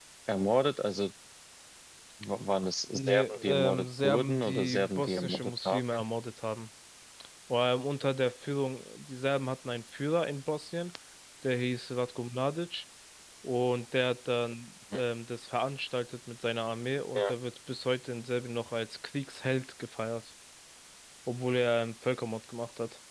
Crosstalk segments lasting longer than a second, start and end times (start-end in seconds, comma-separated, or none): 2.9-6.0